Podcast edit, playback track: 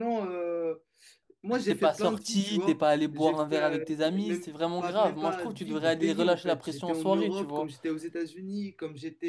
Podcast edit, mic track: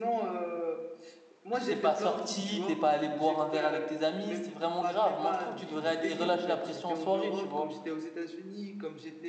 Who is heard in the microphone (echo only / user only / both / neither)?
echo only